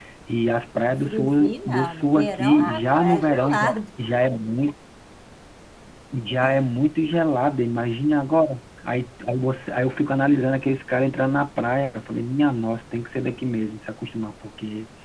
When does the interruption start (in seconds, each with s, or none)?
0.9 s